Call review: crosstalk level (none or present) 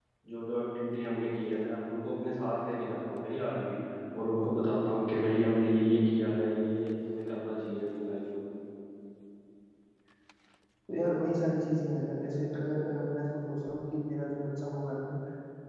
none